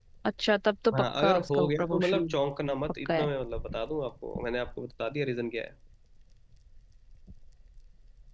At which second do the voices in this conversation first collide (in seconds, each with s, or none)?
0.9 s